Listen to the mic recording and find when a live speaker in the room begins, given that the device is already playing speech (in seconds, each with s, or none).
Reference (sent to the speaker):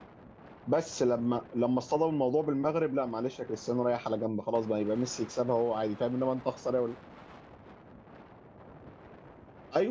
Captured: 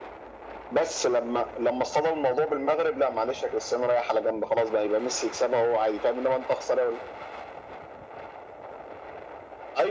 none